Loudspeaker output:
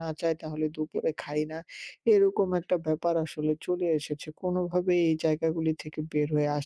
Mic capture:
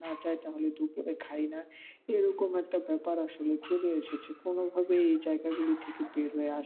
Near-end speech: none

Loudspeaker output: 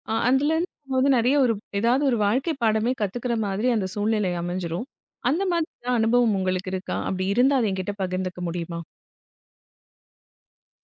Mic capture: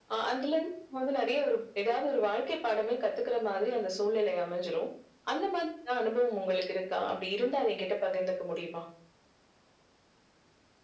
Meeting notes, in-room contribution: none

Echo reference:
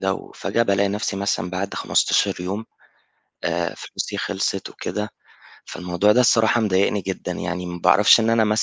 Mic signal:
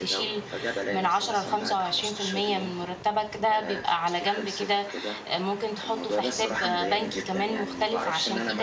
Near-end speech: present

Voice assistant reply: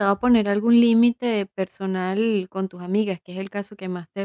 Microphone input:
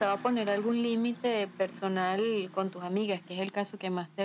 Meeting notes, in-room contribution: none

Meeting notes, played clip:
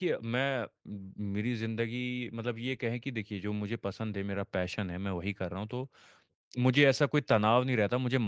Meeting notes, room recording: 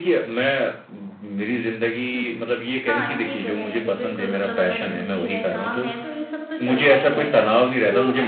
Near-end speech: present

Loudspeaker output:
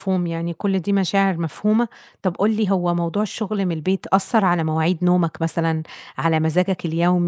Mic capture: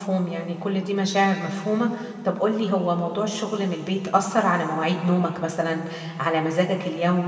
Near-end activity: none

